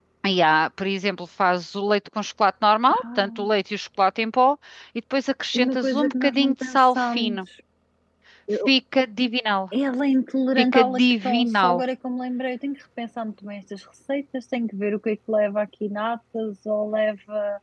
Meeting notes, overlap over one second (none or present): present